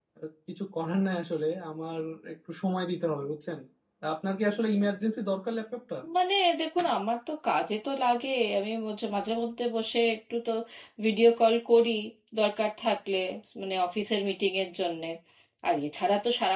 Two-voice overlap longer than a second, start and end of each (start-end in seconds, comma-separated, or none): none